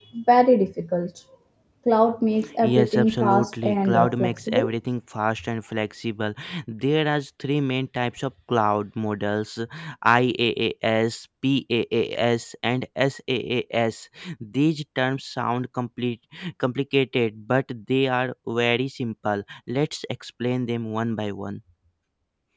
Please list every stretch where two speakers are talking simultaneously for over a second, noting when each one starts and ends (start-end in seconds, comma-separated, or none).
2.6-4.7